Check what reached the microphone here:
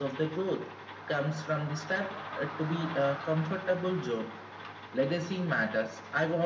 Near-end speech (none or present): none